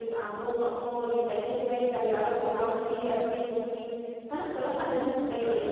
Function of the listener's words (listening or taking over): listening